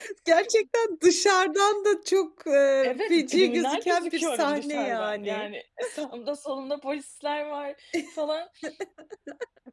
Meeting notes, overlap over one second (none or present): present